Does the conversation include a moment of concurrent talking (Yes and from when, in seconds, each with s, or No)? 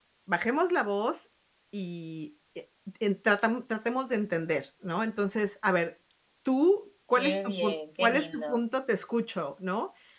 Yes, from 7.2 s